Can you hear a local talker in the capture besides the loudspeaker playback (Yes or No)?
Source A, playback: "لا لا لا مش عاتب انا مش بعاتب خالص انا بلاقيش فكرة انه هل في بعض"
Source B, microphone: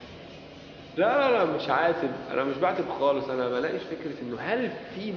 No